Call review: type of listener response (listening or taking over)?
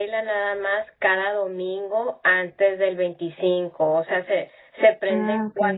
listening